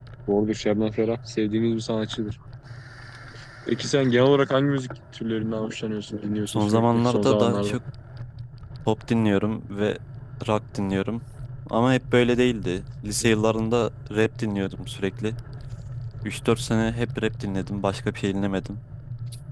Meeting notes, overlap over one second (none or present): present